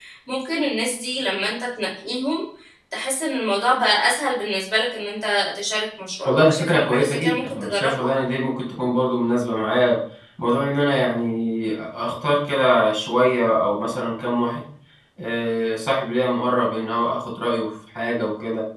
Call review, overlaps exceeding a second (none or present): present